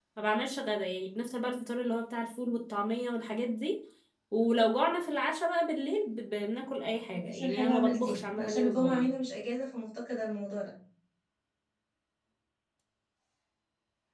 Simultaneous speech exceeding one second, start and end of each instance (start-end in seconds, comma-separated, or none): 7.3-9.1